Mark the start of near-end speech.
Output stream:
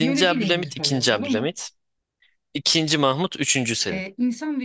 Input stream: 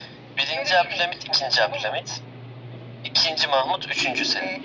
none

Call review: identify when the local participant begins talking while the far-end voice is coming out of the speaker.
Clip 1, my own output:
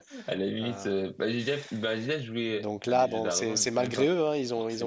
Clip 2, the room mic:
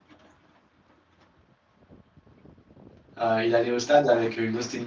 3.2 s

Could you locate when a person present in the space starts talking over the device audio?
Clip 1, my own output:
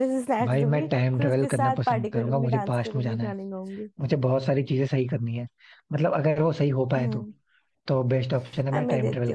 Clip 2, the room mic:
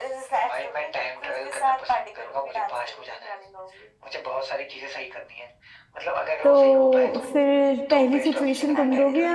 6.4 s

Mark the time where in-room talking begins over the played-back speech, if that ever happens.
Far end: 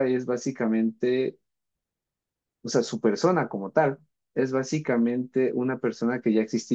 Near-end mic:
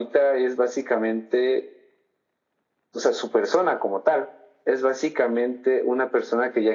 none

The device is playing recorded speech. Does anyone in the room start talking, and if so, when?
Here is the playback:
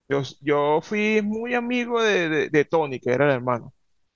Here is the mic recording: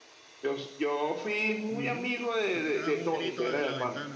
1.7 s

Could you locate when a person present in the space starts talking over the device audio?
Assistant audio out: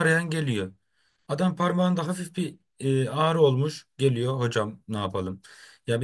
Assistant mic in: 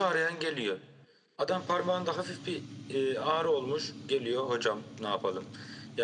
none

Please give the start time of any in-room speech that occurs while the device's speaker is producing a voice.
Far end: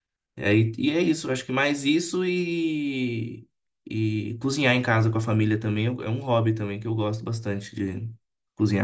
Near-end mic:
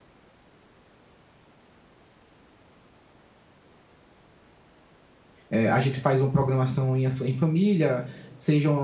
5.5 s

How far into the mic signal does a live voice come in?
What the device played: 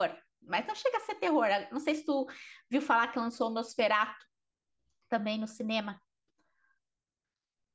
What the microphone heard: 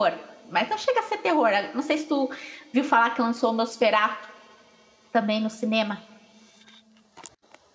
none

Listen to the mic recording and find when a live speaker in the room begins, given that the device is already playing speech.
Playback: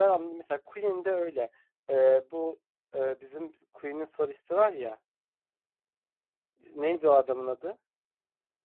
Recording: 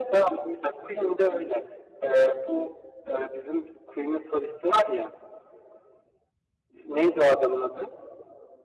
none

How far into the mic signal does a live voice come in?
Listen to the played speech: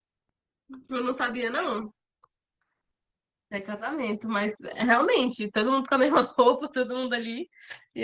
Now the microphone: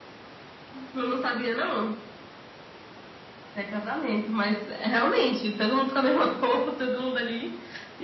none

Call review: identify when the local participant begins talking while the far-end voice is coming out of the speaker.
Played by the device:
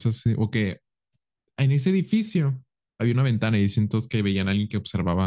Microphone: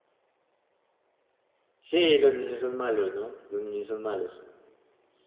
1.8 s

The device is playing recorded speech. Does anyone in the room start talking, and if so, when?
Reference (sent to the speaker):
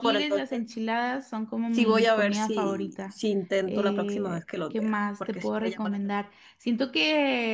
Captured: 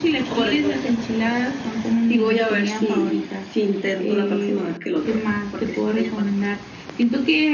none

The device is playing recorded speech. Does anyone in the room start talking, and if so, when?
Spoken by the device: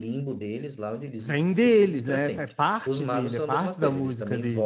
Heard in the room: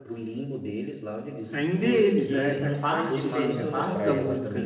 1.8 s

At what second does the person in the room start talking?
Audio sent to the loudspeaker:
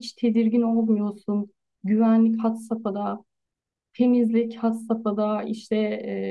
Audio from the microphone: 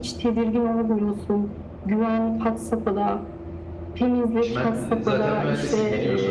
4.4 s

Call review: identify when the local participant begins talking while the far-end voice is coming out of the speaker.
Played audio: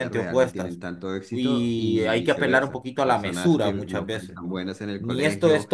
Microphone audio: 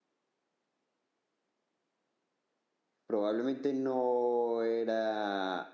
3.0 s

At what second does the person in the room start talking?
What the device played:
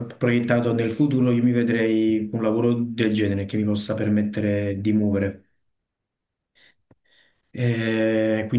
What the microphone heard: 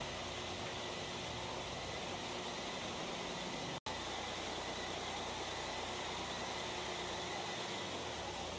none

